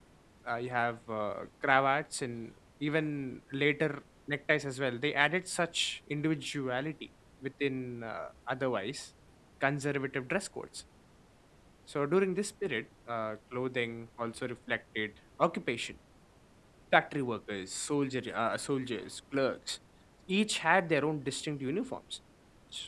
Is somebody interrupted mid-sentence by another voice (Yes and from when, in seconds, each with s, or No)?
No